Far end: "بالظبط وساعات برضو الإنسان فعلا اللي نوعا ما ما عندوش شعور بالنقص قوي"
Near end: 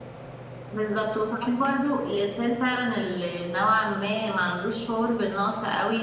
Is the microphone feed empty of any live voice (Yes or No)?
Yes